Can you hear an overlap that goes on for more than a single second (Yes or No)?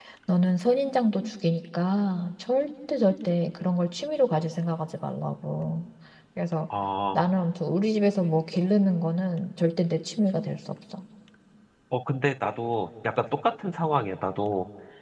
No